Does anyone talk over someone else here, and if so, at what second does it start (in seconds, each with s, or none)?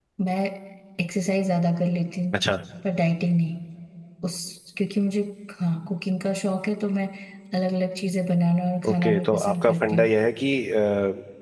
8.8 s